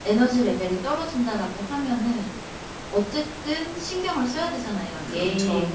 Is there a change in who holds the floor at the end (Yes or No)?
No